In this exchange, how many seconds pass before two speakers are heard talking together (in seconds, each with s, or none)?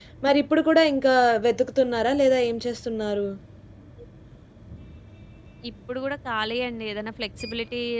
none